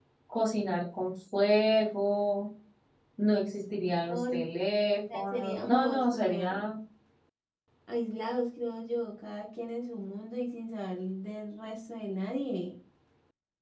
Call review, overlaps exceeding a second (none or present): present